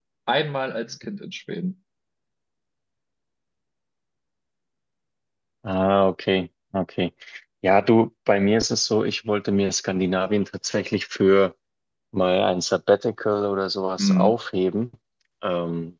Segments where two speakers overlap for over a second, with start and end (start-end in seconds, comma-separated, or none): none